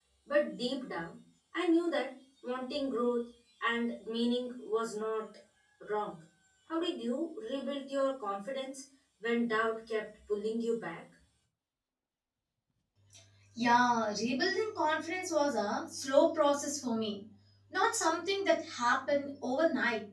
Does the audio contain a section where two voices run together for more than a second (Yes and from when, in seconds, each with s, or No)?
No